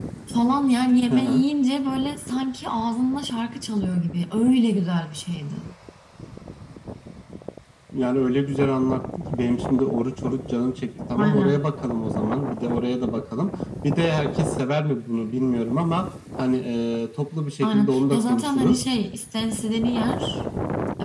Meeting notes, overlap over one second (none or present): present